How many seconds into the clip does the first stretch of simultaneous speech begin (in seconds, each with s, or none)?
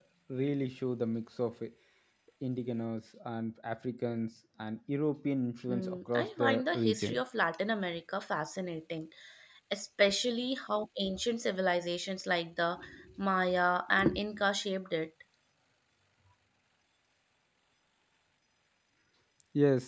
5.7 s